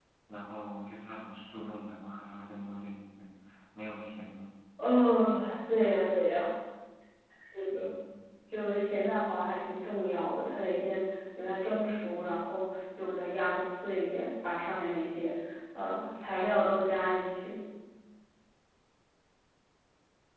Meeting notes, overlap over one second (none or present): none